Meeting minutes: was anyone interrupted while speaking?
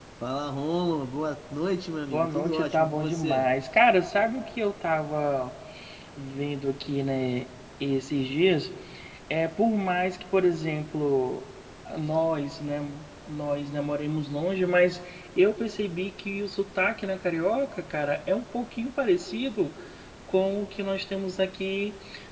Yes, from 2.1 s

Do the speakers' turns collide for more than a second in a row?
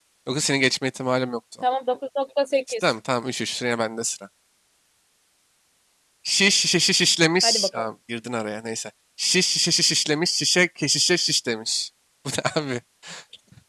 No

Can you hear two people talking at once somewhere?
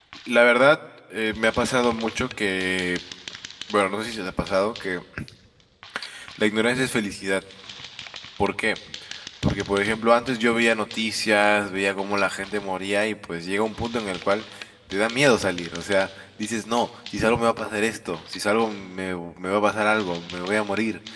No

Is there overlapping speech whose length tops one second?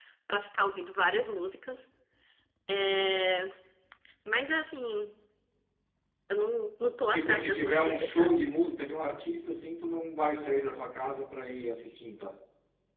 Yes, from 7.1 s

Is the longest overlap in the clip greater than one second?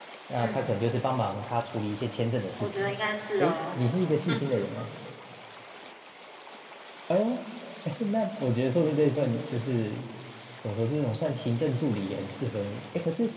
No

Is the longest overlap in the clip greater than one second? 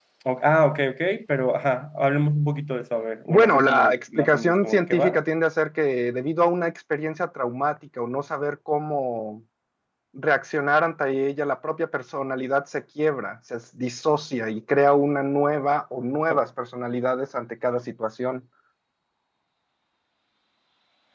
Yes, from 3.3 s

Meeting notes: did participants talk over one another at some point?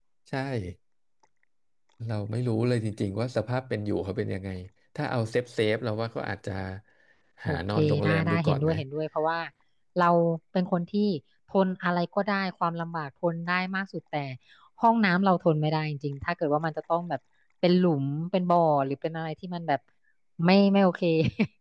Yes, from 7.5 s

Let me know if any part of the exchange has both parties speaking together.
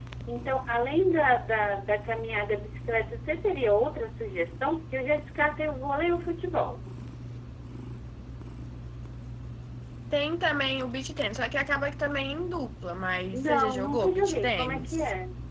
Yes, from 13.3 s

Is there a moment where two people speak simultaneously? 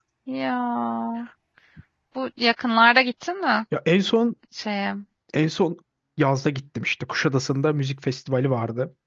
No

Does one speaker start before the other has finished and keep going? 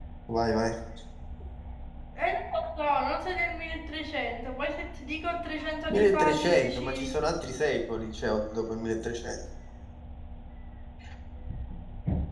Yes, from 5.9 s

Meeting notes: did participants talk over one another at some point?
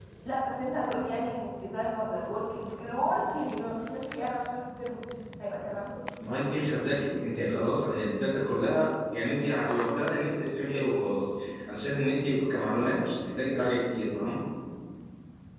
No

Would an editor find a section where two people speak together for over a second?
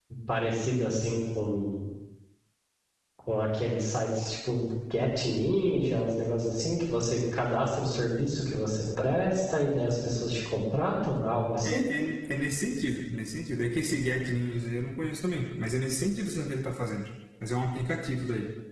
No

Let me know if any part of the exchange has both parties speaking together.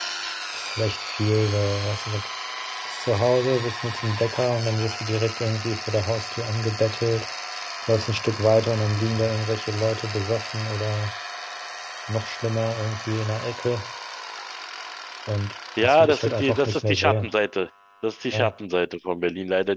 Yes, from 15.8 s

